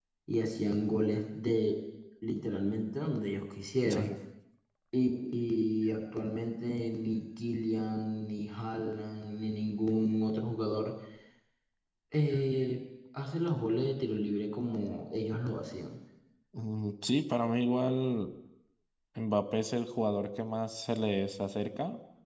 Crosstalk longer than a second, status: none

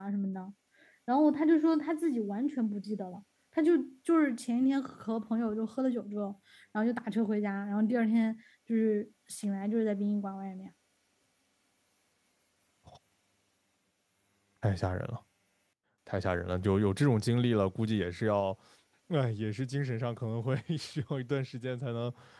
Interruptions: none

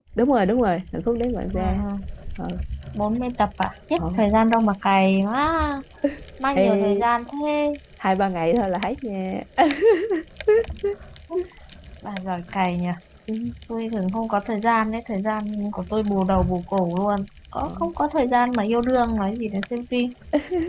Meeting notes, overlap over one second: none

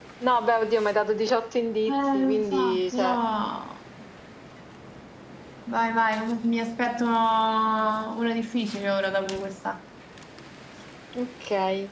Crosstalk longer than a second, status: present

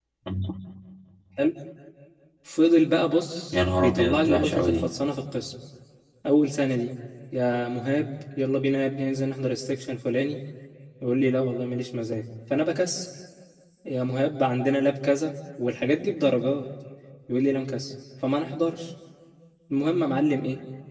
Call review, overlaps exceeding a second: present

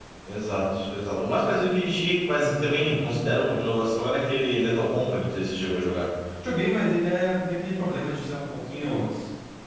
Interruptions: none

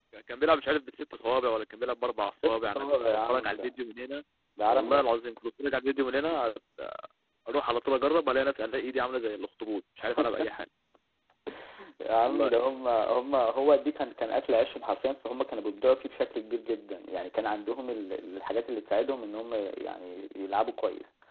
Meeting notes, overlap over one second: present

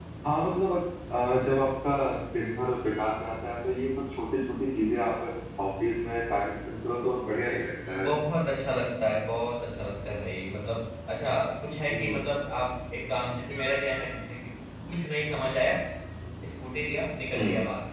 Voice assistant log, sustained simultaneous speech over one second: none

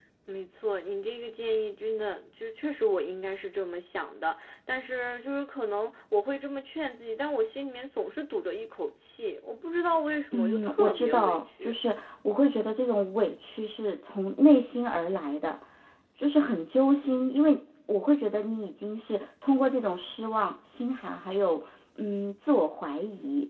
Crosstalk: present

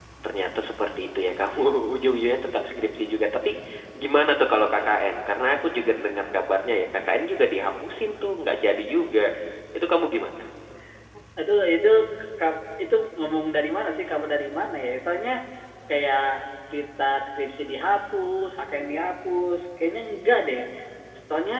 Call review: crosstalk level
none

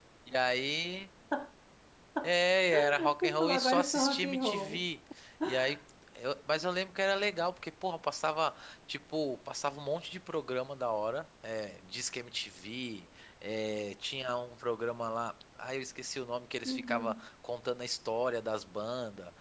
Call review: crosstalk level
present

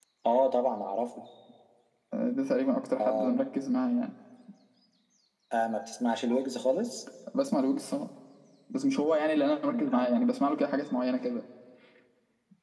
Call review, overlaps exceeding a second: none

